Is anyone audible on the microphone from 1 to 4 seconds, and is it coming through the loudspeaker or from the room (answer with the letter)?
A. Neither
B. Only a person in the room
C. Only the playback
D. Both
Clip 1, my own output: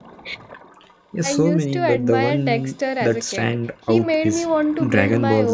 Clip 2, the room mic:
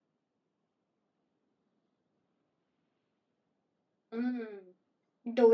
A